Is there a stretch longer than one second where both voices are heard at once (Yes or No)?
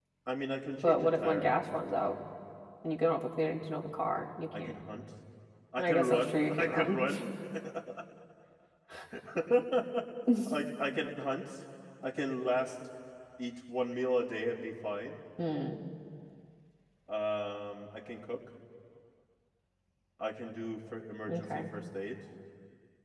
Yes